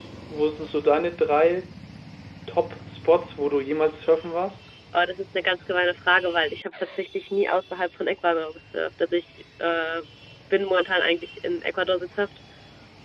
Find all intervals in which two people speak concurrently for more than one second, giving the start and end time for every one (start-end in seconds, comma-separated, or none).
none